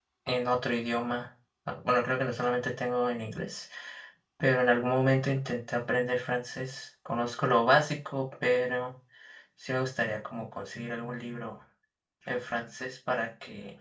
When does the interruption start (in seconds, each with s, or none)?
none